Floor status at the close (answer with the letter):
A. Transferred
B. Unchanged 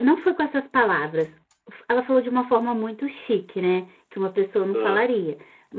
B